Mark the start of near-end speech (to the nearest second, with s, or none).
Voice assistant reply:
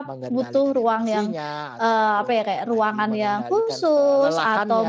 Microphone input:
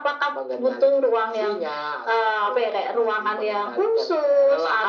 none